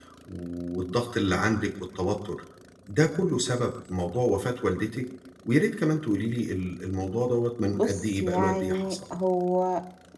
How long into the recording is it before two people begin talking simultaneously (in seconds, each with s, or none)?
7.7 s